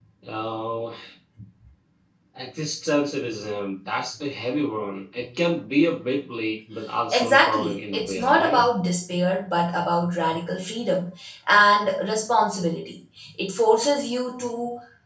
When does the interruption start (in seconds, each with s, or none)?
7.1 s